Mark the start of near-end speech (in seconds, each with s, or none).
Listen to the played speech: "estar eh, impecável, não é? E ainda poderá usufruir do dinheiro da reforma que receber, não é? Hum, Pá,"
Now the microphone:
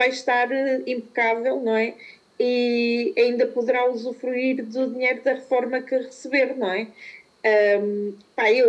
none